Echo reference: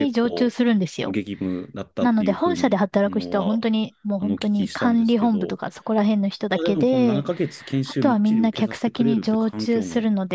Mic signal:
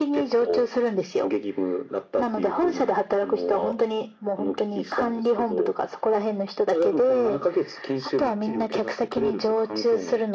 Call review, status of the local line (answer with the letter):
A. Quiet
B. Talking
A